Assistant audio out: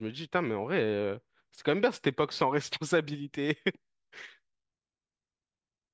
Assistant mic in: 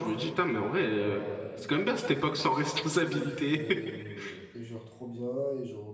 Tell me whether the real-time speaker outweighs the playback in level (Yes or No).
No